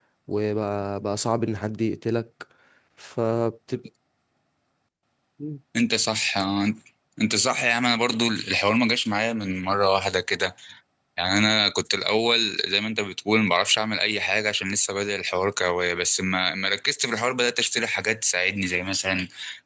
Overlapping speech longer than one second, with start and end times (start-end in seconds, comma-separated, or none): none